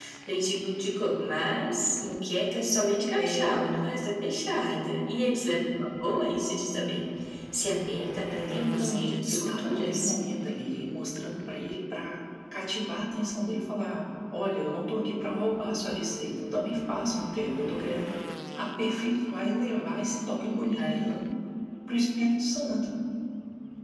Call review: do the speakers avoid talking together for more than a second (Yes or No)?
No